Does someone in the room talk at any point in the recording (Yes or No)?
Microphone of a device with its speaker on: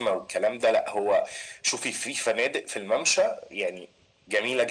No